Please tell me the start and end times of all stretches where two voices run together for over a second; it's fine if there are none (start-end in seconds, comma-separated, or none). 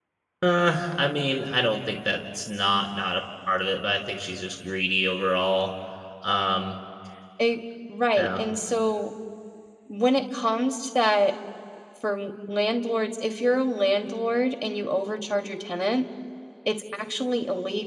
none